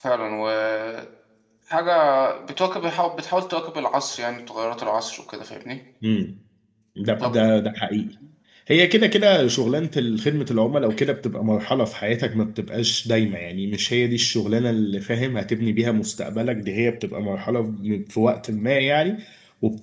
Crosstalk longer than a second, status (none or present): none